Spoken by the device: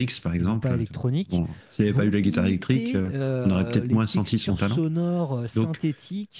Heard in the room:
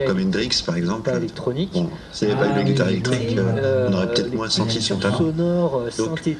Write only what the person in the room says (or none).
Ah oui, je vois, je vois. Oui, oui. Aya Nakamura.